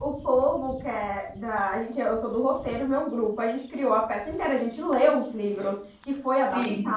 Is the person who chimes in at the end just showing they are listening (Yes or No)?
Yes